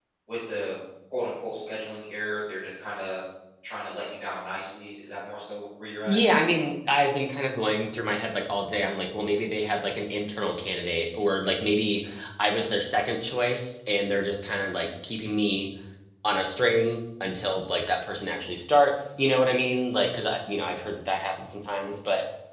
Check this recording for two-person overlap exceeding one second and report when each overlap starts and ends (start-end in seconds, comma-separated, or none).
none